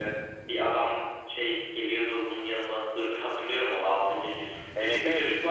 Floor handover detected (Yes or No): No